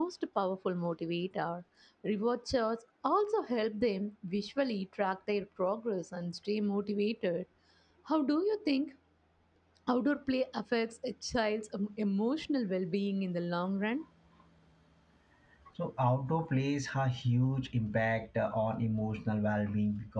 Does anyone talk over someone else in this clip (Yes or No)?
No